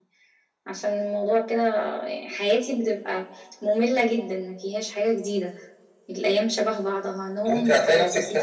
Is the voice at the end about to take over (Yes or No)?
Yes